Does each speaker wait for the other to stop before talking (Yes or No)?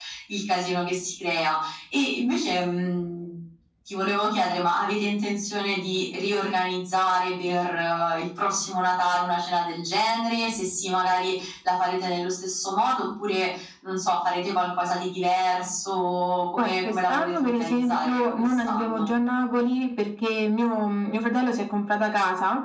No